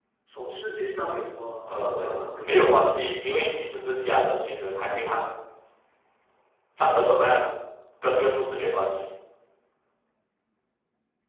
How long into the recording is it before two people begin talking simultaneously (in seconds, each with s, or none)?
1.6 s